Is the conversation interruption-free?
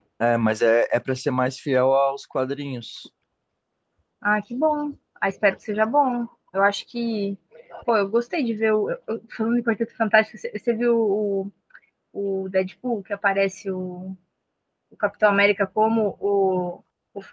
Yes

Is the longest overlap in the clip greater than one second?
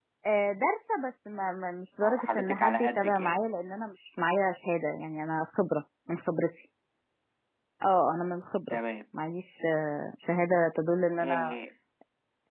Yes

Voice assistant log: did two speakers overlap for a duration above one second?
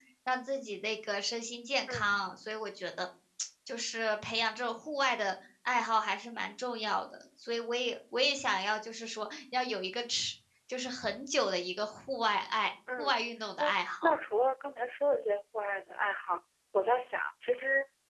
No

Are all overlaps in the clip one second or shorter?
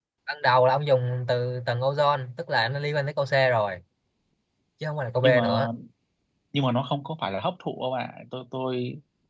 Yes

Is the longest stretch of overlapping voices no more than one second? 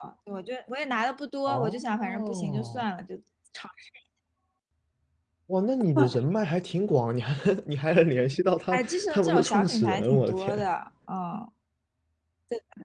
No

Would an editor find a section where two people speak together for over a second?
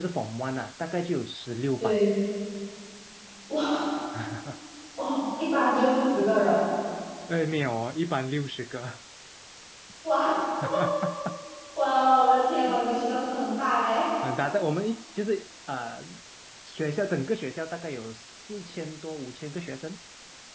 No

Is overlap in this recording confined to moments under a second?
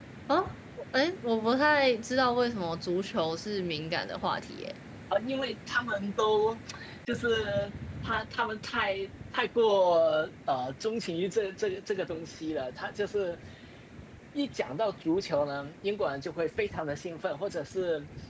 Yes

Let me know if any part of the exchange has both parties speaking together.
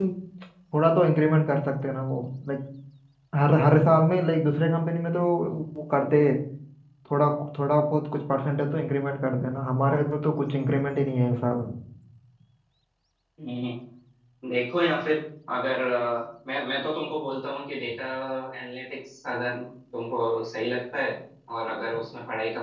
No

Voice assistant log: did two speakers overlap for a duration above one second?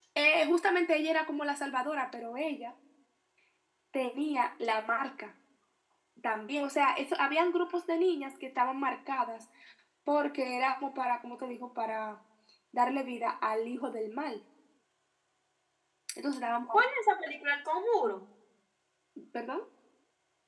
No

